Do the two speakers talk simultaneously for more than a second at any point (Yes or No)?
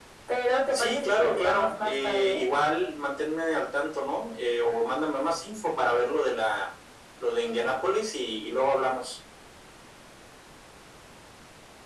Yes